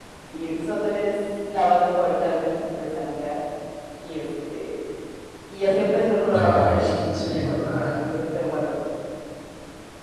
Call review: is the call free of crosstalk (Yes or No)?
No